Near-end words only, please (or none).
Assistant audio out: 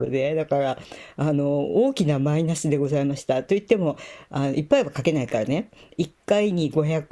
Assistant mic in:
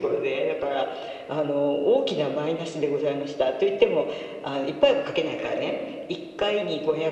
none